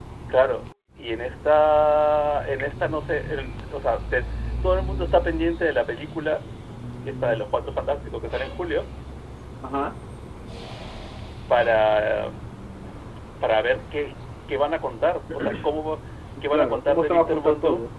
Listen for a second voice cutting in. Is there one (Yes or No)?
Yes